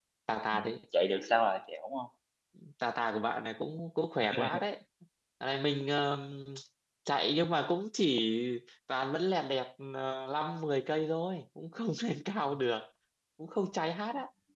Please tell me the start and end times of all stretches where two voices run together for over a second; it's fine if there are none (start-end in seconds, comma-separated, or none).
none